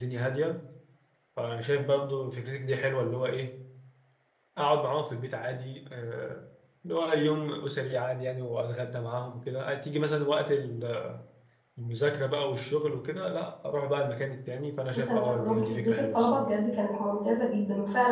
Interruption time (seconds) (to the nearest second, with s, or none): 15 s